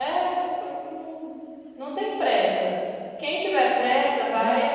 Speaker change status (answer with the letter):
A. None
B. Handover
A